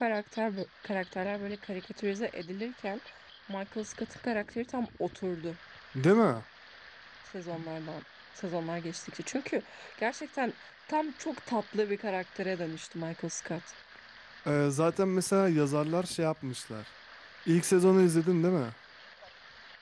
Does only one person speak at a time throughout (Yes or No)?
Yes